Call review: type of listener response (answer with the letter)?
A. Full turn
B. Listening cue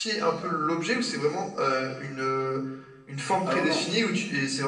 B